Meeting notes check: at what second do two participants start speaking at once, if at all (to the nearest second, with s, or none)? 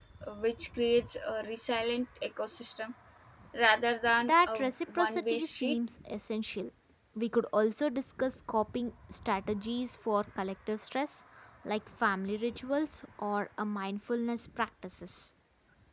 4 s